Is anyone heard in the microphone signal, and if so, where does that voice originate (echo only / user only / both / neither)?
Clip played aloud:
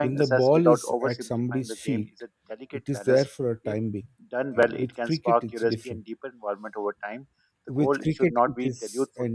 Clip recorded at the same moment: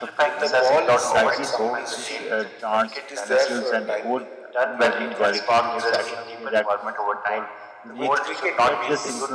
both